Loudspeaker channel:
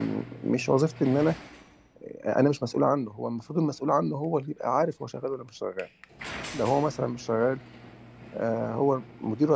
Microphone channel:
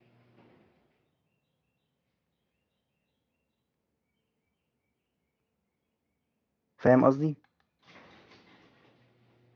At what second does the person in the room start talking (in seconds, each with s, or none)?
6.8 s